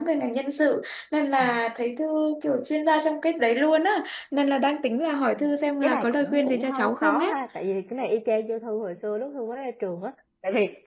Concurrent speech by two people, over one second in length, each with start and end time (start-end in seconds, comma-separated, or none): 5.8-7.3